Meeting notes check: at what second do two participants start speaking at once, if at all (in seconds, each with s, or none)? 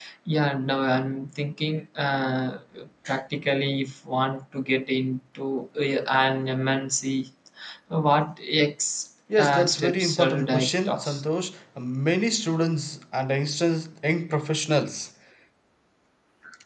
9.3 s